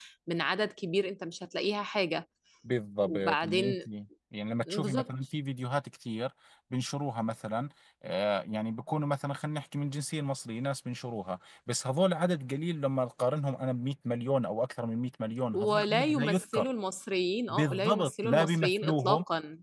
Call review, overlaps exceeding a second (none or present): present